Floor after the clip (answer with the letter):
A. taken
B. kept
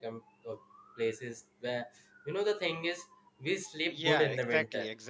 A